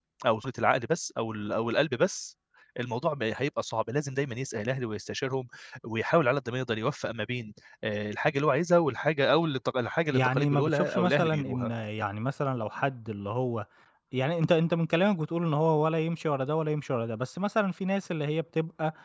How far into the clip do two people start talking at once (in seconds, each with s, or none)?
10.1 s